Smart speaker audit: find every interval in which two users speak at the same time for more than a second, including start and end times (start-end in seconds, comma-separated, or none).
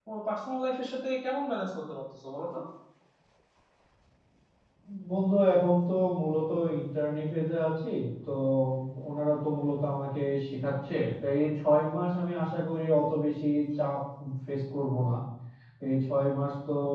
none